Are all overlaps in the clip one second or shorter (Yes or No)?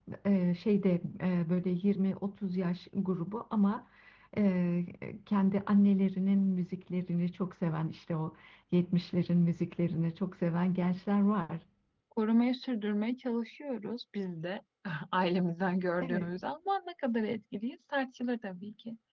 Yes